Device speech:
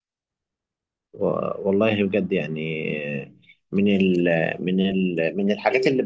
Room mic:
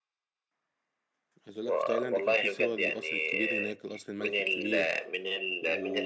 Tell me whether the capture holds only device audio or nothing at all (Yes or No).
No